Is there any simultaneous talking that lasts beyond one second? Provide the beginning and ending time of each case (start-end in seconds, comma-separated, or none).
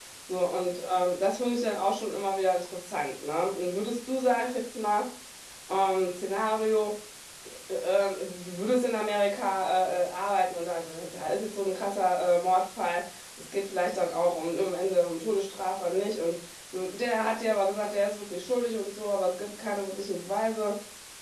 none